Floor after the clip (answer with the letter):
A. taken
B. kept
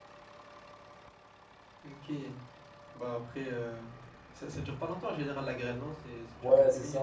A